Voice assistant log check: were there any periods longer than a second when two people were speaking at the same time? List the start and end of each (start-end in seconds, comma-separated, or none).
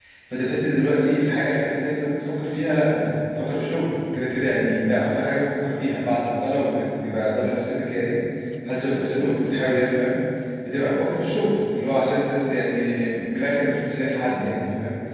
none